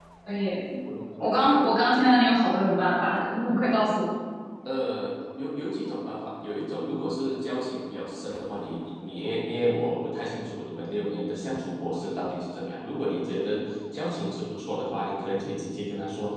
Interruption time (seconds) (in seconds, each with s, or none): none